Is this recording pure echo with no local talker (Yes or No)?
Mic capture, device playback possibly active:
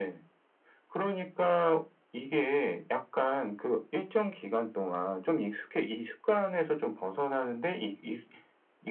Yes